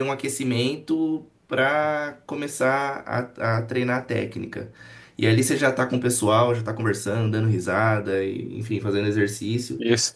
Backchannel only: No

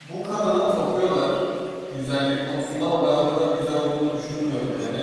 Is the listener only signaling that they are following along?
Yes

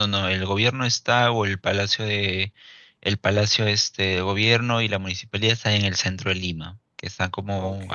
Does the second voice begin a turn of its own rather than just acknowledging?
No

